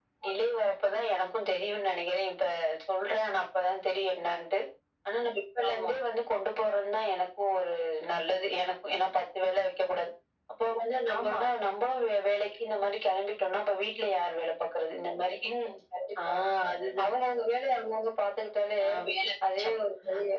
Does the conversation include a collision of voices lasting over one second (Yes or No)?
No